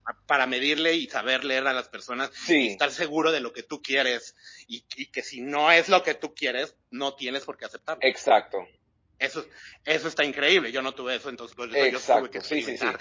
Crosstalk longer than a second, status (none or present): present